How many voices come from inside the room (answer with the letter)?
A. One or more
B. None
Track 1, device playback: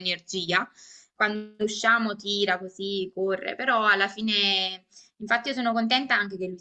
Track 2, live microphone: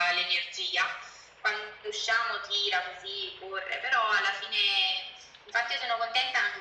B